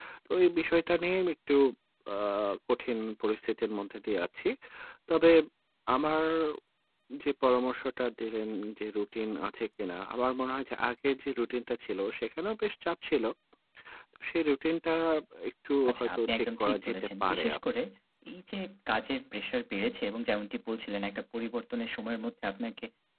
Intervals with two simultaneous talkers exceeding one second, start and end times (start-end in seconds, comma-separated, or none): 15.9-17.8